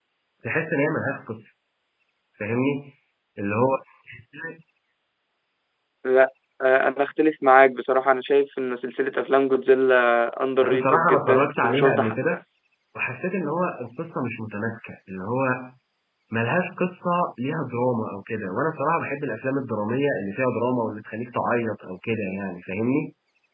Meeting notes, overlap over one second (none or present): present